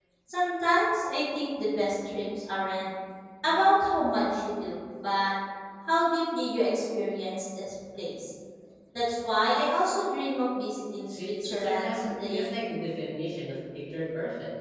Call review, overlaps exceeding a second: present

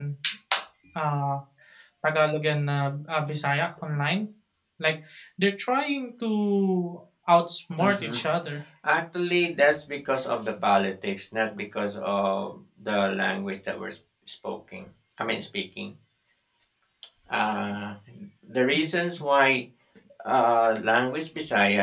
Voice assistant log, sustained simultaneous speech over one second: none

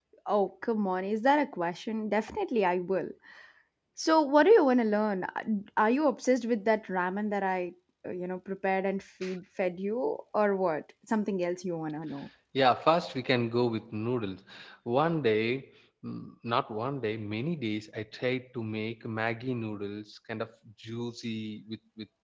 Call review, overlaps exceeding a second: none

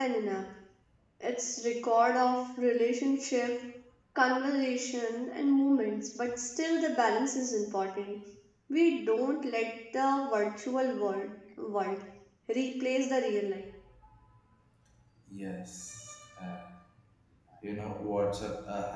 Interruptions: none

